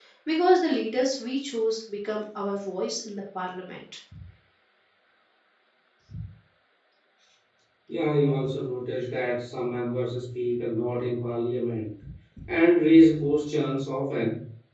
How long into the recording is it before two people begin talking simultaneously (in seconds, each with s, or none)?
none